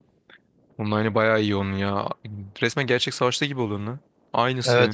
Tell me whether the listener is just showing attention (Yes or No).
No